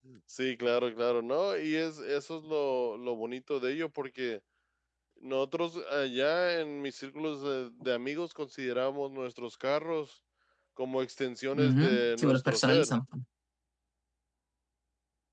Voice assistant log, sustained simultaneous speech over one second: present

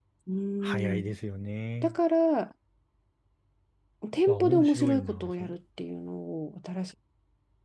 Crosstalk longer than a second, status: present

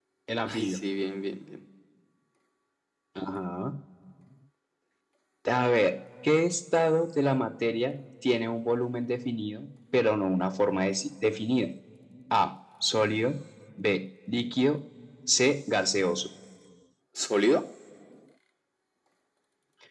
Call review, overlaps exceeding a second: none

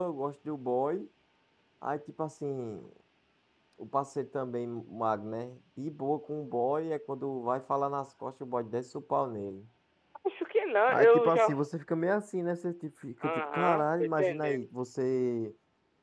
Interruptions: present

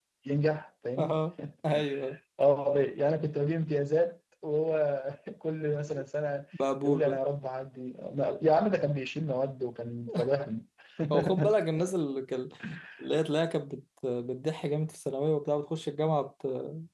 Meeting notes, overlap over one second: none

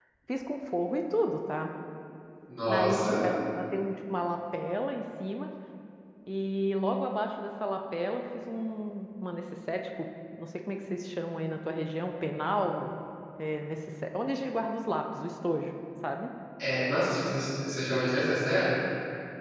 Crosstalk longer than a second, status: none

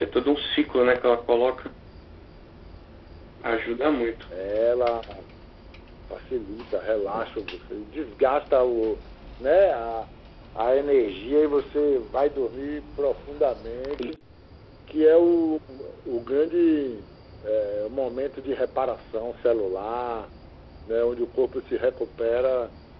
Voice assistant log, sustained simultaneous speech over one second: none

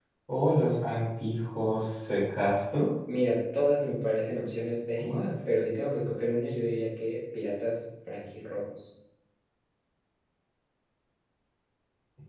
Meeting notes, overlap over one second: none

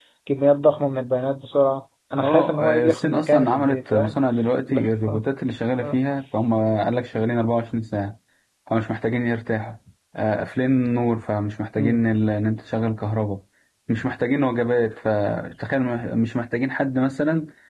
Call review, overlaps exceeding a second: present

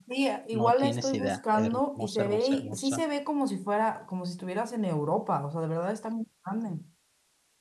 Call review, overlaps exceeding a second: present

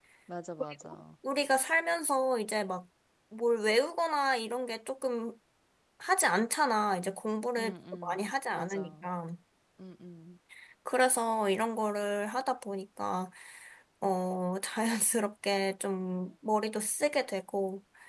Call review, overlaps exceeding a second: present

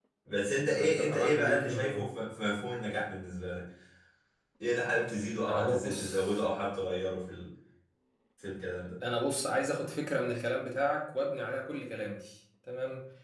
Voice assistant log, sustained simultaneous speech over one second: present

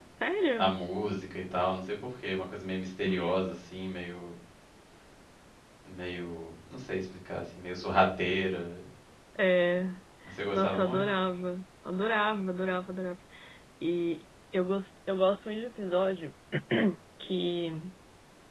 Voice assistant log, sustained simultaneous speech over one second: none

